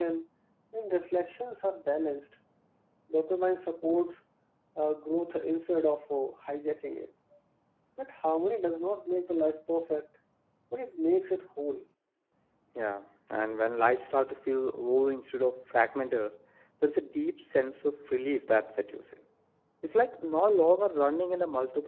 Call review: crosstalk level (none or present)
none